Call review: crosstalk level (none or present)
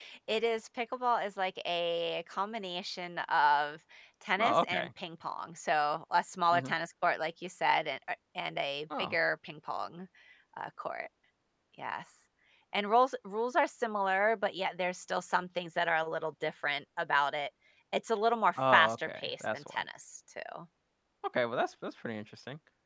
present